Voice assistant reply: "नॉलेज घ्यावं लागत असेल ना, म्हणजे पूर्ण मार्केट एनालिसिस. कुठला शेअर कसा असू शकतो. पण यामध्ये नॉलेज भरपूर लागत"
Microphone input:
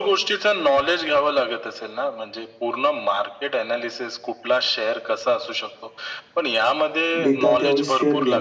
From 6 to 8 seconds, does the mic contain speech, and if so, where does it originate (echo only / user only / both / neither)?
both